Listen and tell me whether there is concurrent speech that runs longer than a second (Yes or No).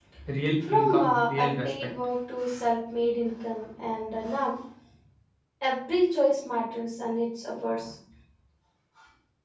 Yes